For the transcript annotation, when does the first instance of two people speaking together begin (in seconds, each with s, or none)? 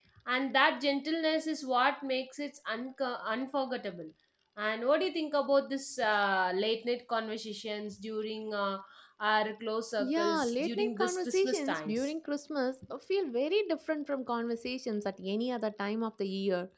10.0 s